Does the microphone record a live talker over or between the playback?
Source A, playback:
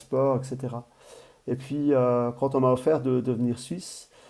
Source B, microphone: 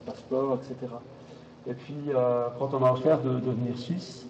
No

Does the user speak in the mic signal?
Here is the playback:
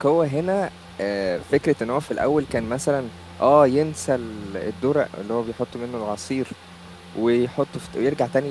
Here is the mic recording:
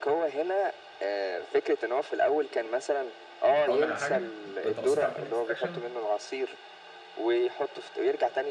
Yes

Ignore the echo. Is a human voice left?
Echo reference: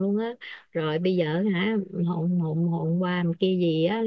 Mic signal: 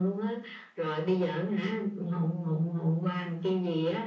No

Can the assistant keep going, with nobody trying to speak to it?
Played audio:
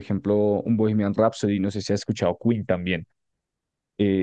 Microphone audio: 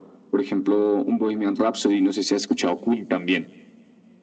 Yes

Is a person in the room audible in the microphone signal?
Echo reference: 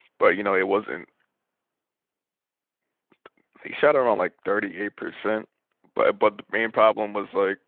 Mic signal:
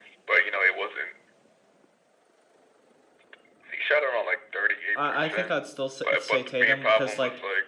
Yes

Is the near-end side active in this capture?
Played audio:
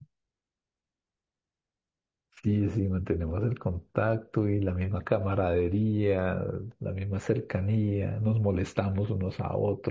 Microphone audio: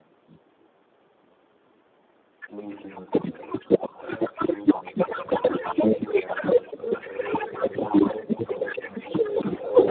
Yes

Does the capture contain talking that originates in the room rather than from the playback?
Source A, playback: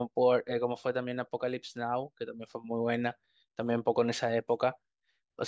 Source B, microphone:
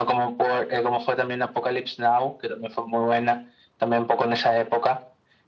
No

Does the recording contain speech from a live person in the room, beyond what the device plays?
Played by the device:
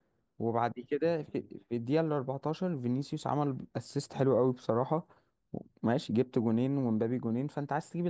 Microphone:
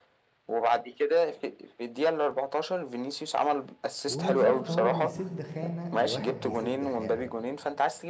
Yes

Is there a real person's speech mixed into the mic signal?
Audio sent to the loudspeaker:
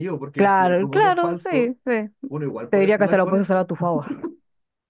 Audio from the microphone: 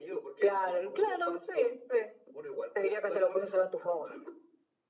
No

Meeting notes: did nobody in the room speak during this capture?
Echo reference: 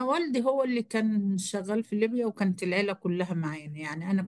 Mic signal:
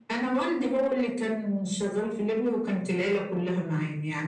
Yes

